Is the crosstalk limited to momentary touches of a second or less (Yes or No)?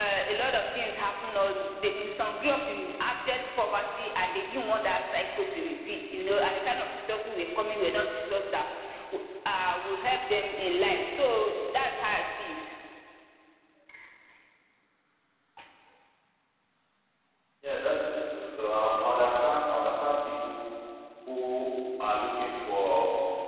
Yes